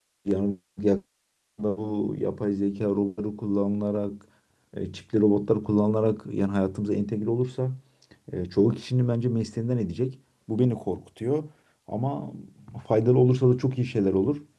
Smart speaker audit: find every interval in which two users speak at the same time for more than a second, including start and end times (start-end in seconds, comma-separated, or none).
none